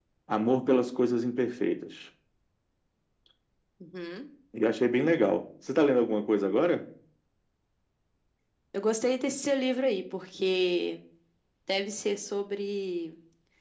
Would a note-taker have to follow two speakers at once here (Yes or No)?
No